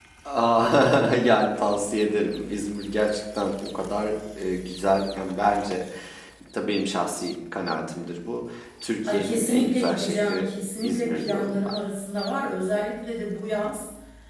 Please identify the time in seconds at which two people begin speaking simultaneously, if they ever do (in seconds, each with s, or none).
9.0 s